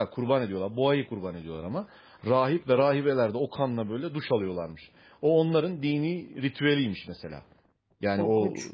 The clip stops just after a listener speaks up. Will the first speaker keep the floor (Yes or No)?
Yes